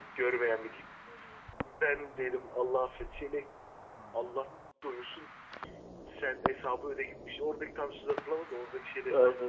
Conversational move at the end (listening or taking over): taking over